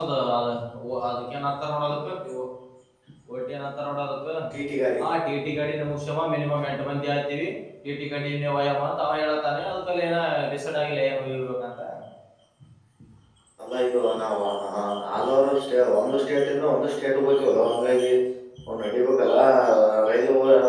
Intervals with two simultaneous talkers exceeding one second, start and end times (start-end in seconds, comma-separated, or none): none